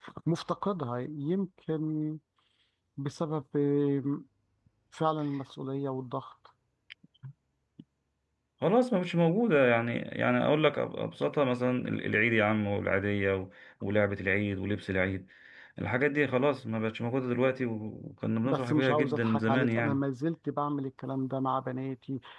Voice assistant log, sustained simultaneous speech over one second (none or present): present